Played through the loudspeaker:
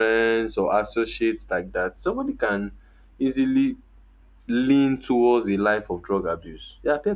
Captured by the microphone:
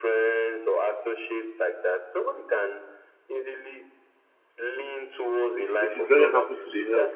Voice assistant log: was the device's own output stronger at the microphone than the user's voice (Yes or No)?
No